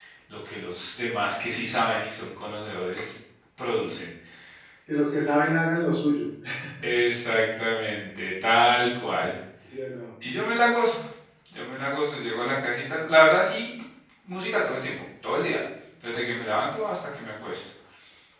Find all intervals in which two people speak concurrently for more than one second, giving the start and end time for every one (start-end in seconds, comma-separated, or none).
none